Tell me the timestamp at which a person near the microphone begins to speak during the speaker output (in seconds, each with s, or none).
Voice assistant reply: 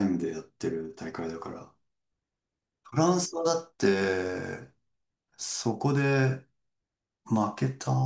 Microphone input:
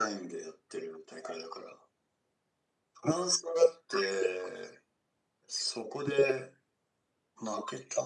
none